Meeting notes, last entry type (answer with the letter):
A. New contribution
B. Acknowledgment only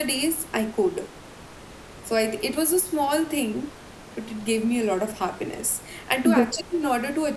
B